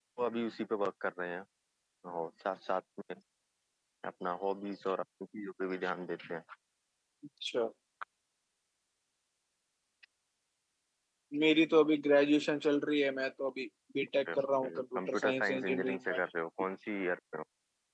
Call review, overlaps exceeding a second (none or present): present